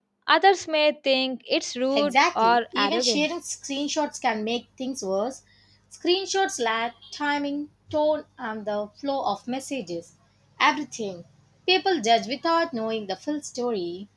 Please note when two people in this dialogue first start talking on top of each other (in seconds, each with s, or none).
1.9 s